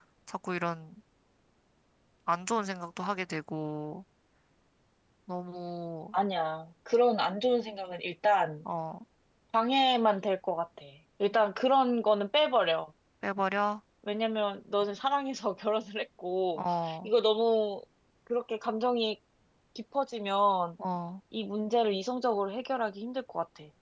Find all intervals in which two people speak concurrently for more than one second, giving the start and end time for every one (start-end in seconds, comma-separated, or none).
none